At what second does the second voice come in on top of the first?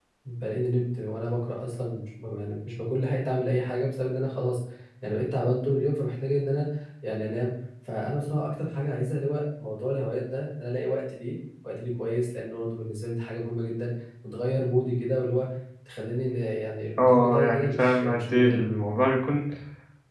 17.0 s

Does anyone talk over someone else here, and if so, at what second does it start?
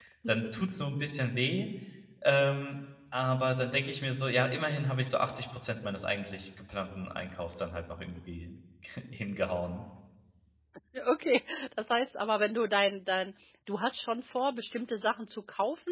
none

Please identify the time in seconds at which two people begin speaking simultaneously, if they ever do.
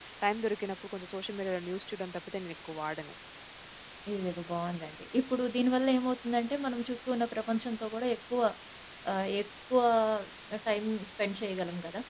none

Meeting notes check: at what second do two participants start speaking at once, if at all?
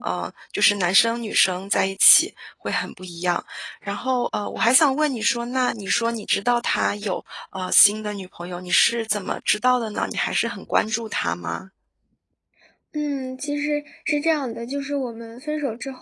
none

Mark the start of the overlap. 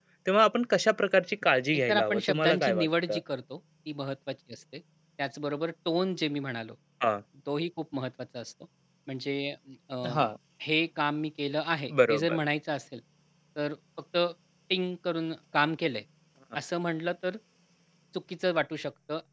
1.8 s

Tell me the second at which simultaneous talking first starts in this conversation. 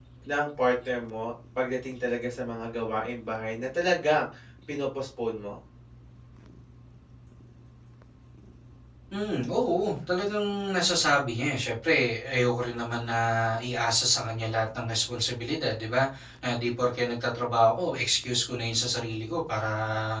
none

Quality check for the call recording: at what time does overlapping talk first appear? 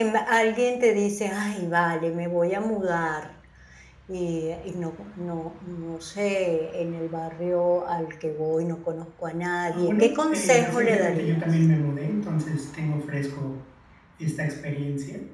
9.7 s

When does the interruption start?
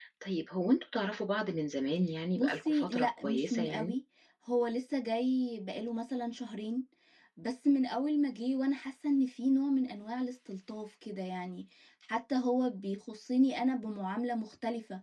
2.4 s

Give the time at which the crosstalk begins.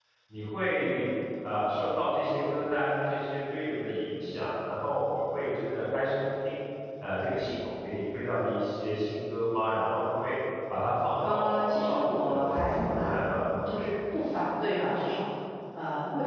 11.2 s

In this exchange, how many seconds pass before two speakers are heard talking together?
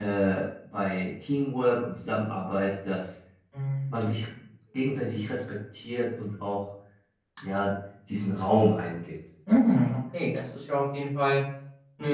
none

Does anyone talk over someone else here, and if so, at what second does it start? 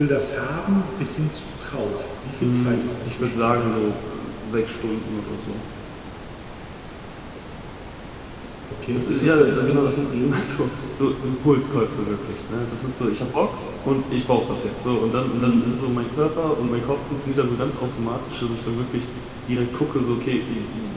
2.4 s

